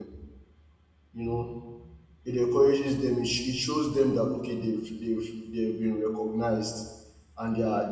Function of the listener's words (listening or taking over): listening